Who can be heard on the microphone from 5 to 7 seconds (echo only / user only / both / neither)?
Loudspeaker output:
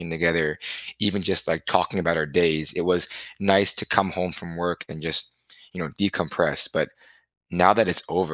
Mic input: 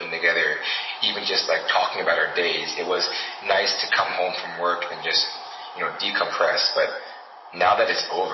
echo only